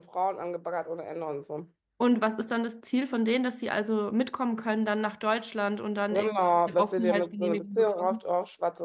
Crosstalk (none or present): present